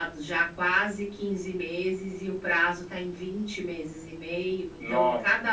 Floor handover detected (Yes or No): No